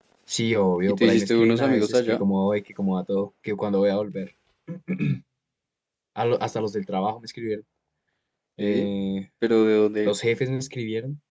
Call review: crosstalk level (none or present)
present